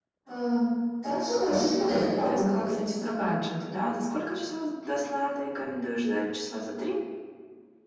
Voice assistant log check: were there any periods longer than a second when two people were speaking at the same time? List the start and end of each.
1.5-3.3

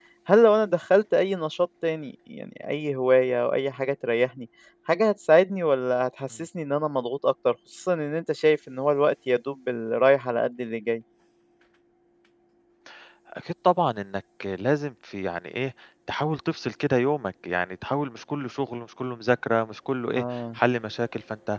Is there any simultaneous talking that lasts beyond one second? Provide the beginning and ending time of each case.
none

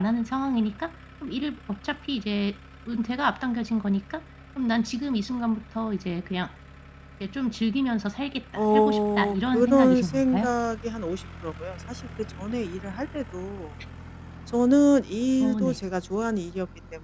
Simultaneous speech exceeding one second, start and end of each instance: 8.6-10.5

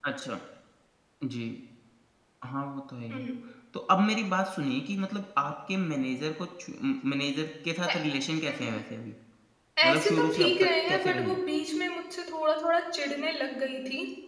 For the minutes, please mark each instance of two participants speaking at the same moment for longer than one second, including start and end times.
9.8-11.4

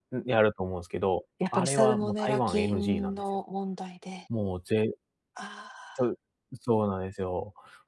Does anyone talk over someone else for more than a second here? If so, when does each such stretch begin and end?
1.5-3.2

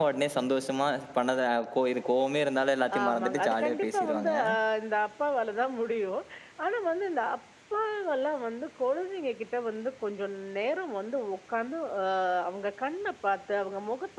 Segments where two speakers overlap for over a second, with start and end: 3.0-4.3

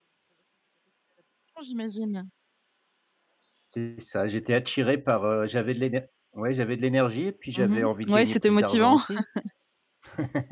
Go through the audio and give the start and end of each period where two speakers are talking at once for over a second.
7.6-9.0

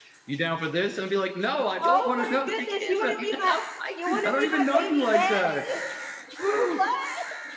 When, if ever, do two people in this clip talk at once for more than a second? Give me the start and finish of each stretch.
1.8-3.5, 4.0-5.6

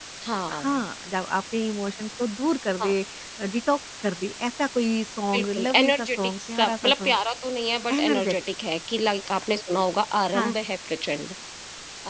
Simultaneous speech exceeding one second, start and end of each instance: 5.3-7.2

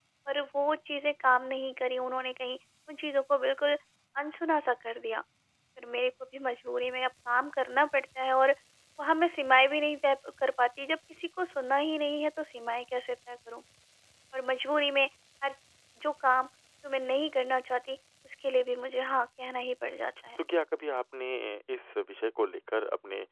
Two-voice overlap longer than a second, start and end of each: none

